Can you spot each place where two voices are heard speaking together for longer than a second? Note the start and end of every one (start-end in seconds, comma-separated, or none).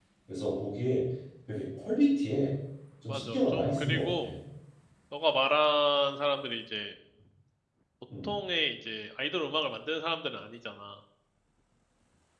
3.1-4.3